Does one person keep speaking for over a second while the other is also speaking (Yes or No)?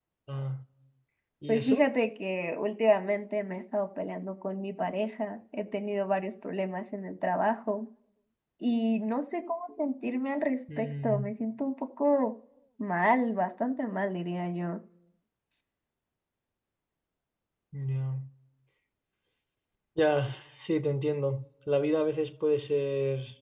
No